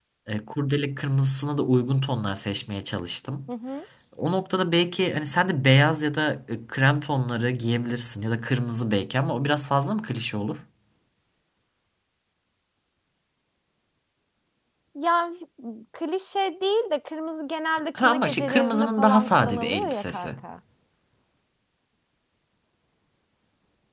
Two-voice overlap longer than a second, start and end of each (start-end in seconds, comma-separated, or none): 17.9-20.3